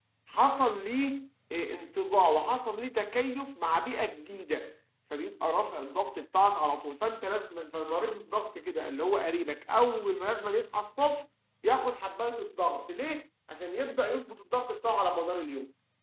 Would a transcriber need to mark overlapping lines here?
No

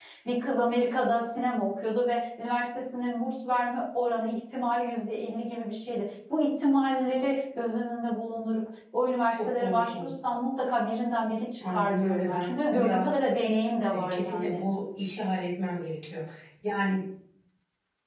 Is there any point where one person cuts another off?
Yes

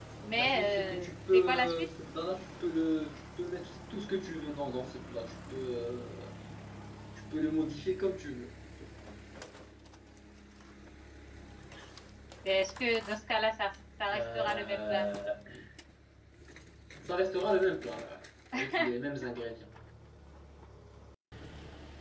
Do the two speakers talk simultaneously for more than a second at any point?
Yes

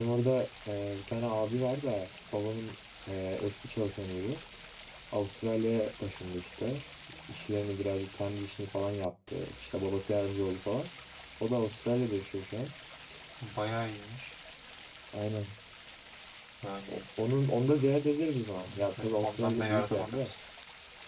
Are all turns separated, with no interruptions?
No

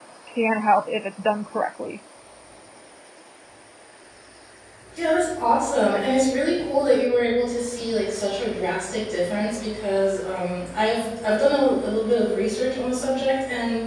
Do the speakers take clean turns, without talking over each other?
Yes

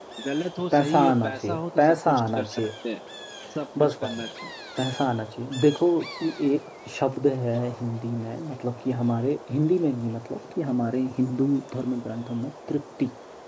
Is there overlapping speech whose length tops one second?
Yes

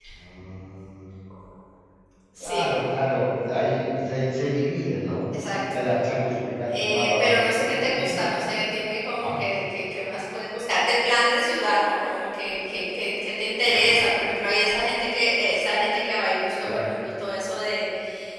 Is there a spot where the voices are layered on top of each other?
Yes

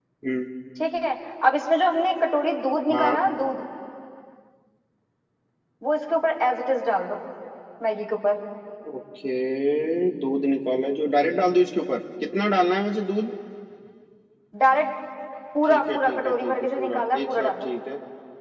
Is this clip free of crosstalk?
No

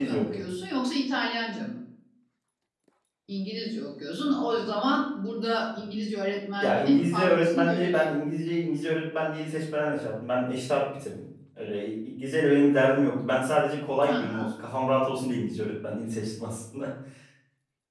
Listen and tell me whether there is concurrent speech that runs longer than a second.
Yes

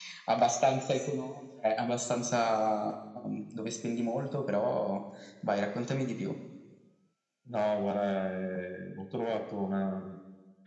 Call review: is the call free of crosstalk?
Yes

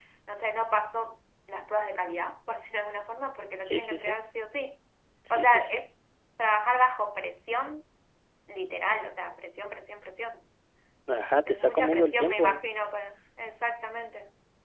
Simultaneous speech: Yes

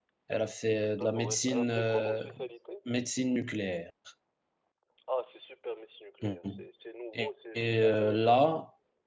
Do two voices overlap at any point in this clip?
Yes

